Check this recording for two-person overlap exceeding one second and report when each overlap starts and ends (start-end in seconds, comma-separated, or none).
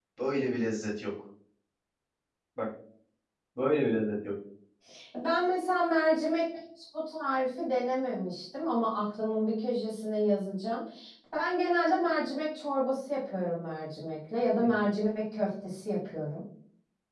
none